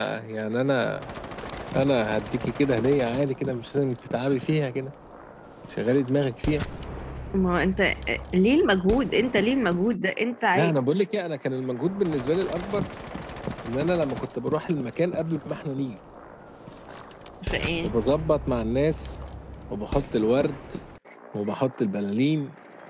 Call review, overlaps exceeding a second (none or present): none